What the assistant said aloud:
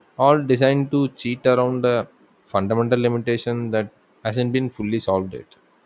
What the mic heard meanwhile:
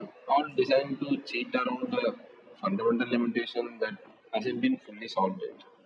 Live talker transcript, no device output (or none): none